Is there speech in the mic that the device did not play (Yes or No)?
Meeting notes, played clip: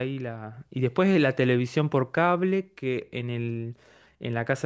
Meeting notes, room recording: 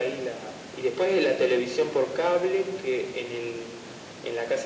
No